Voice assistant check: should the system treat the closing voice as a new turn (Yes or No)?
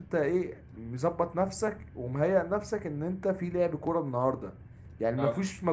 No